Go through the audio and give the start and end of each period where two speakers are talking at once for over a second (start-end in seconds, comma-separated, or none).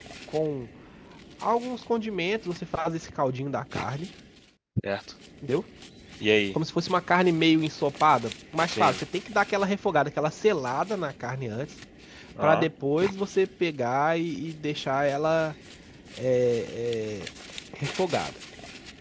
none